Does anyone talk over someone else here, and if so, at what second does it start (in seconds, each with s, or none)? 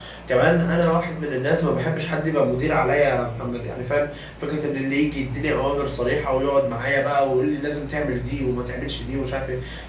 none